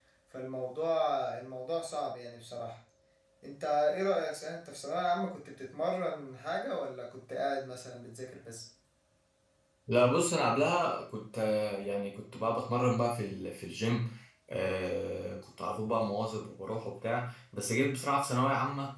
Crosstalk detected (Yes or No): No